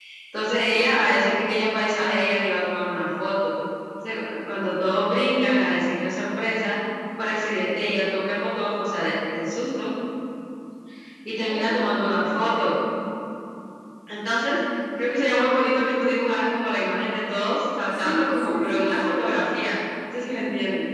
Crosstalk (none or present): present